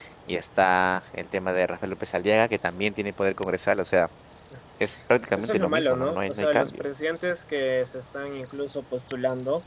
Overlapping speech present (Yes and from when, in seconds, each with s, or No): Yes, from 5.4 s